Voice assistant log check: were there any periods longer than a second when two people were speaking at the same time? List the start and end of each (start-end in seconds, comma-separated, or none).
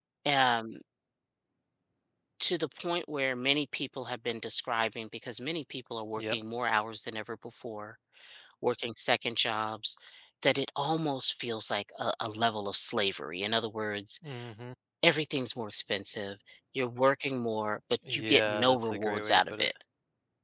18.1-19.7